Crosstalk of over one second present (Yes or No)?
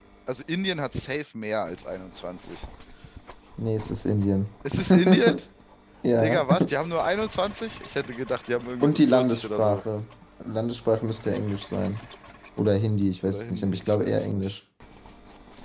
Yes